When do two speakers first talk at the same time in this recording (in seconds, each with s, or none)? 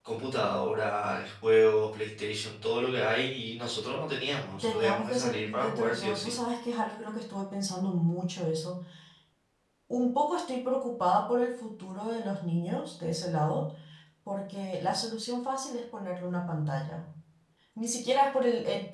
4.6 s